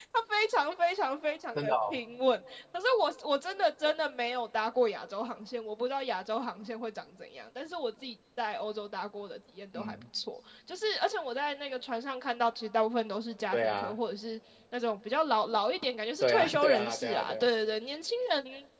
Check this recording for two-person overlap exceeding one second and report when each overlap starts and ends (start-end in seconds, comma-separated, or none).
16.2-17.4